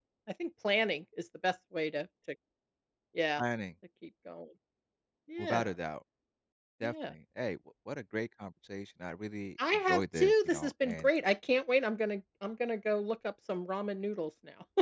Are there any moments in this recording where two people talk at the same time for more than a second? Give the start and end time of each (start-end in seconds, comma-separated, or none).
9.9-11.1